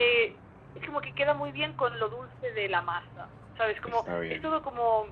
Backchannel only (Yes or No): Yes